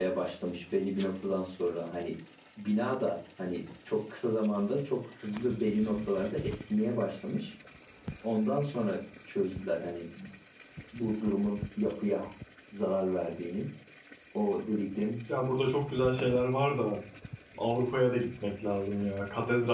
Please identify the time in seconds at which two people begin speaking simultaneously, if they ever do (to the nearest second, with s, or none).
none